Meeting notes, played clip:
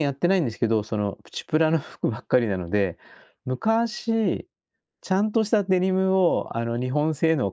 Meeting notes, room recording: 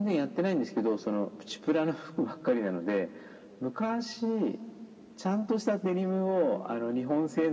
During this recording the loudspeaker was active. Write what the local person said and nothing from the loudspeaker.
none

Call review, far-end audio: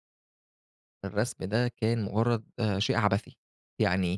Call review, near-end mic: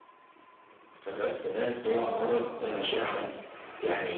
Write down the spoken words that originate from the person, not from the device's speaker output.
آه، ممكن، آه.

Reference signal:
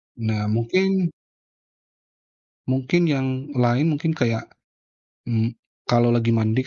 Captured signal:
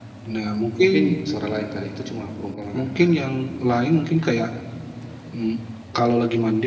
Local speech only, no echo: mungkin suara lain kali, itu cuma perumpamaan kan.

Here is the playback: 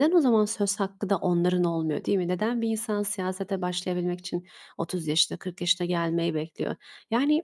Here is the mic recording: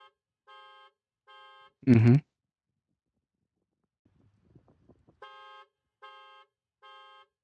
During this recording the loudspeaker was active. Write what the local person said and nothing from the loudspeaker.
Hı hı.

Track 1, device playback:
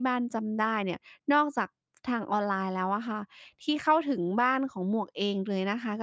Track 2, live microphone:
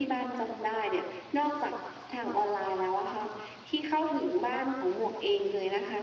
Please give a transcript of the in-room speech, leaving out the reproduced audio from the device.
none

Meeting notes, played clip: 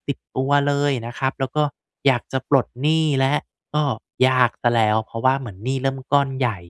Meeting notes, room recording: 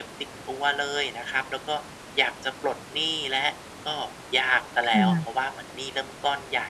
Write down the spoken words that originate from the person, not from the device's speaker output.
ค่ะ

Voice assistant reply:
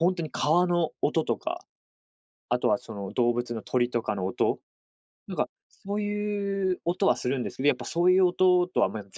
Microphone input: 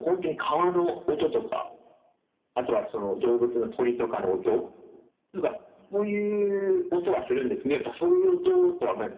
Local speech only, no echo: none

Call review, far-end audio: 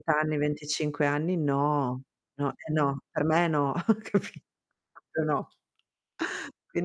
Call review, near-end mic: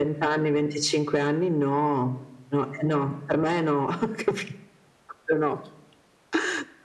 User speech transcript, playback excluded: none

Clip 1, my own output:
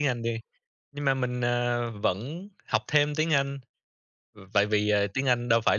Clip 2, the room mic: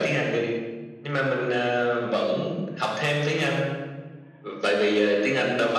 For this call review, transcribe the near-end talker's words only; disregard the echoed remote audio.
none

